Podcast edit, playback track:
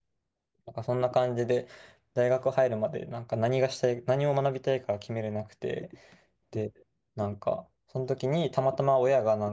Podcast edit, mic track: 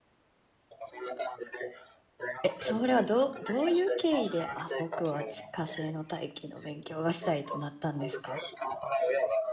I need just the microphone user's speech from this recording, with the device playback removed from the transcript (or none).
え、それはどう、どういう経緯で、あ、僕は地火星の大気の勉強がしたいとなったんですか